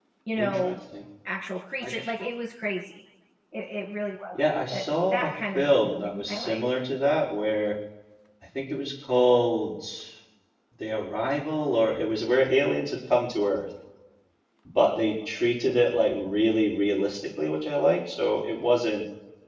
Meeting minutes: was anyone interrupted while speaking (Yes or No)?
Yes